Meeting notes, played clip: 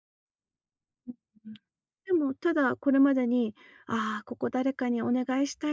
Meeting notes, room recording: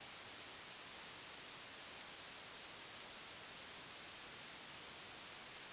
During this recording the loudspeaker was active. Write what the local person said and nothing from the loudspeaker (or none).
none